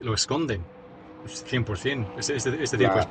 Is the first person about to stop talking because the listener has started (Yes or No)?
No